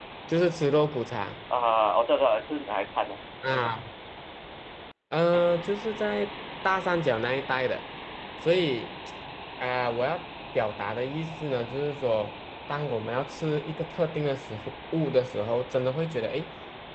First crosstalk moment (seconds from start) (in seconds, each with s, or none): none